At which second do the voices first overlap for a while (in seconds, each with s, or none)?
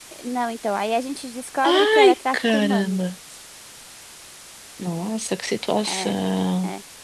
1.6 s